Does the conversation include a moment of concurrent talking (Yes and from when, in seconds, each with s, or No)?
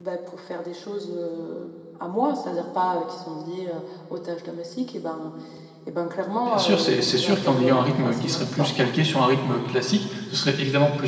Yes, from 6.5 s